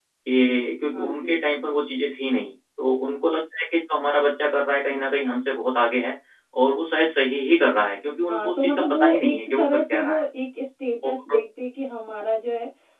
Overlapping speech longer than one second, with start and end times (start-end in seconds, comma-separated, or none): 8.3-10.2